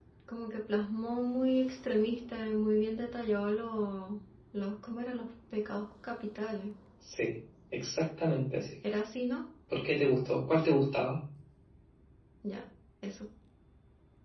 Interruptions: none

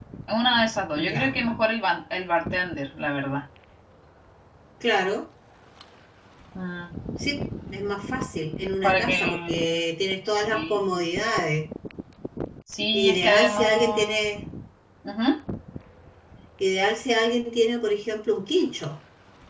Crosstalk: present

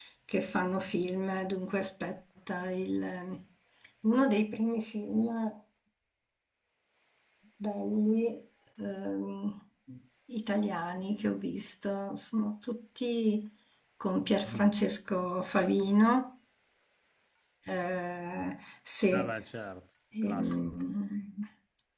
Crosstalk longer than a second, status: none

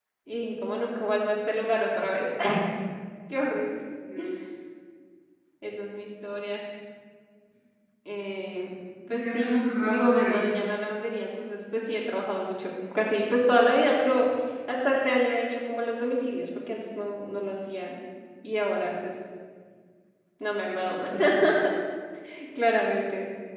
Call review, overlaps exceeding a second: present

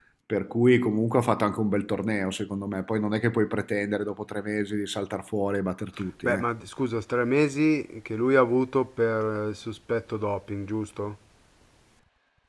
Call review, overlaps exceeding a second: none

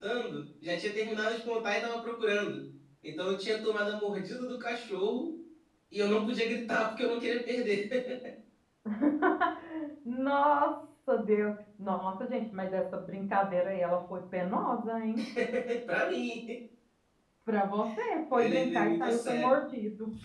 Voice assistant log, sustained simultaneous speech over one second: present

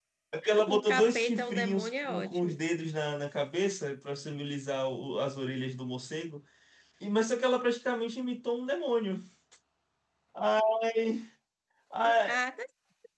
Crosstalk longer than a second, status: present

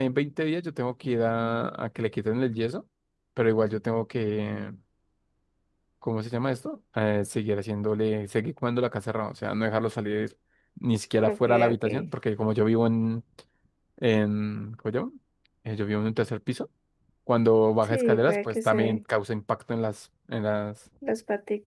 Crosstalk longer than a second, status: present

